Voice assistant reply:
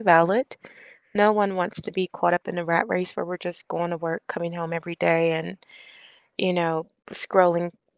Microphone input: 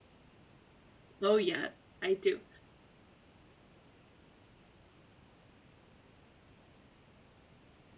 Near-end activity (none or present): present